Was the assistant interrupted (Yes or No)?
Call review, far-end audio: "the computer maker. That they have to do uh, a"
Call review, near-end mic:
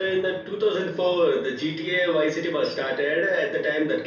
Yes